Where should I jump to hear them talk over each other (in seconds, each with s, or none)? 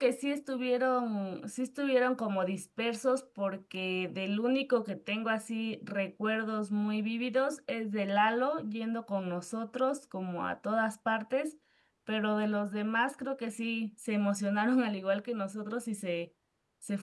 none